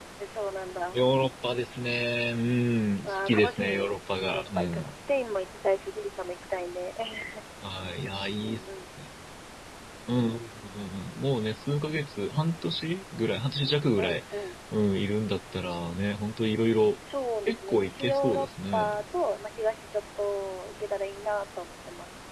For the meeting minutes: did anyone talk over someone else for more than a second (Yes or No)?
Yes